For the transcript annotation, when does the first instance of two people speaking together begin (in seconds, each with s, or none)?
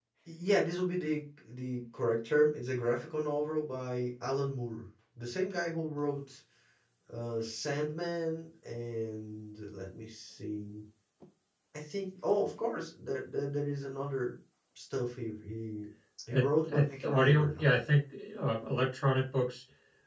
16.3 s